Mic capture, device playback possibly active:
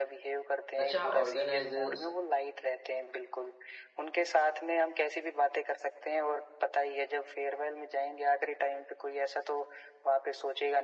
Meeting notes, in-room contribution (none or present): present